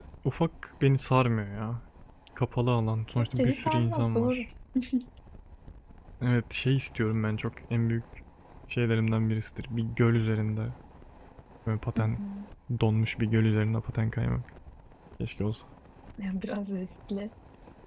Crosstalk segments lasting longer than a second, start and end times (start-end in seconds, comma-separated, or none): 3.2-4.5